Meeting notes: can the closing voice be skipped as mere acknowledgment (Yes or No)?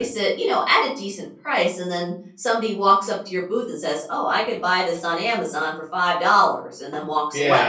No